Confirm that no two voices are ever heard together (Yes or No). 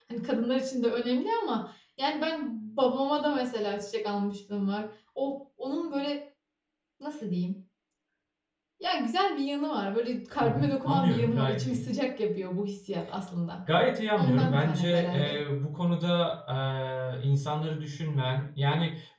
No